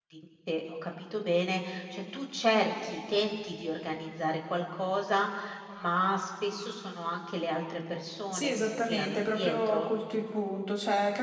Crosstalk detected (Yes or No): Yes